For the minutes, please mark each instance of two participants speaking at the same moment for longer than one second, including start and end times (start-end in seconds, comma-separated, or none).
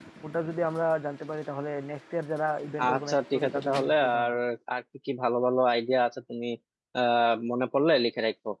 2.8-4.3